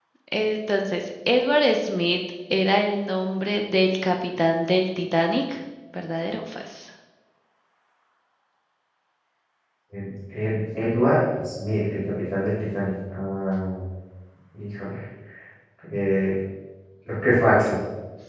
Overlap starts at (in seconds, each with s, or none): none